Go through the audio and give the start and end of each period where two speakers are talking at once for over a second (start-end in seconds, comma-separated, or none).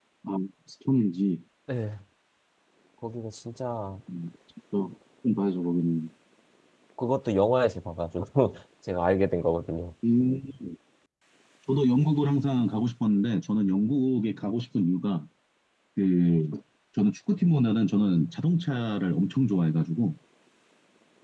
none